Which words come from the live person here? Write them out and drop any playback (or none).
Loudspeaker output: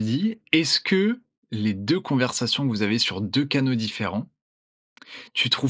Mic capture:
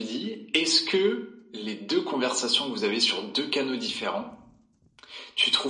none